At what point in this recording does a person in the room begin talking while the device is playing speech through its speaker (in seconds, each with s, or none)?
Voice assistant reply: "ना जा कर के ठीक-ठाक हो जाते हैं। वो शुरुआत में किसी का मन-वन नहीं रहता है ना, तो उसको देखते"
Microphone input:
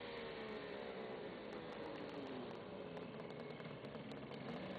none